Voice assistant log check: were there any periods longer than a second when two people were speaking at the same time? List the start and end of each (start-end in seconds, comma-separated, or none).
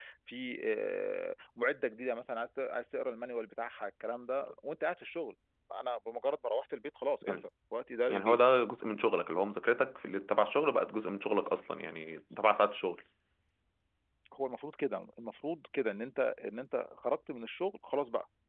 none